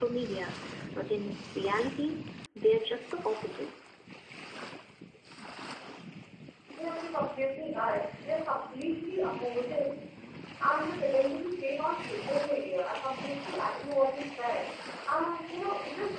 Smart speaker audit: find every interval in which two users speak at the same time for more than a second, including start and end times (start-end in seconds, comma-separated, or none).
none